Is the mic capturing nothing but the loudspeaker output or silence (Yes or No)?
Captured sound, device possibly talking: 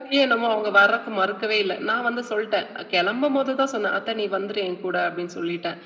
Yes